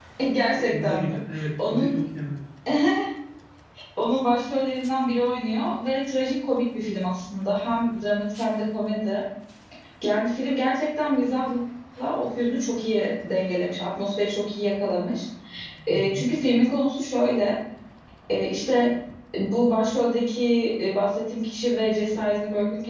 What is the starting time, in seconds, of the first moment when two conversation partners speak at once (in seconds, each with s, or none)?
0.6 s